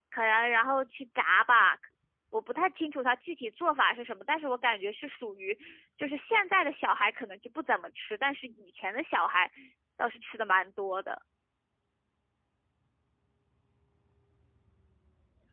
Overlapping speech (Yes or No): No